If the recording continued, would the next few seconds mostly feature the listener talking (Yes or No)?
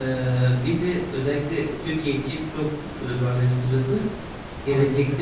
No